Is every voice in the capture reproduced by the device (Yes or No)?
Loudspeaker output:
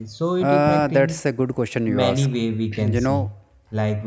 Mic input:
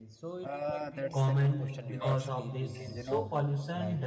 No